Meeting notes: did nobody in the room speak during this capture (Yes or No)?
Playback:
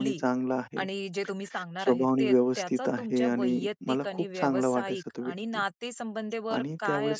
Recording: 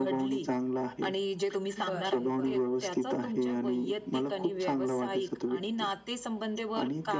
No